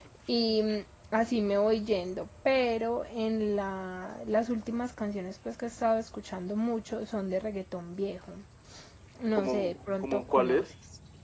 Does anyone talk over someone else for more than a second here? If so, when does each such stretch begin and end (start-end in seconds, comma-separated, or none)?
9.4-10.7